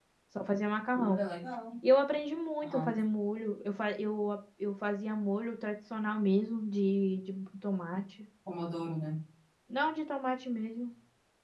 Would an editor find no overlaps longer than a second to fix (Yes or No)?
Yes